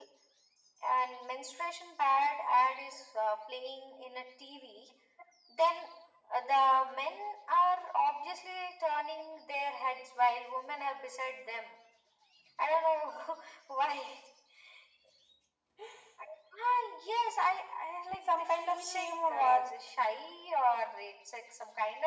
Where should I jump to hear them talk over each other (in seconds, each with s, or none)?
18.1 s